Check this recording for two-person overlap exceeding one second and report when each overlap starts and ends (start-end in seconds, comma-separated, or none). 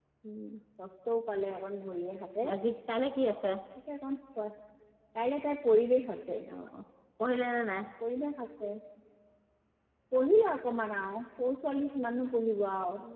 none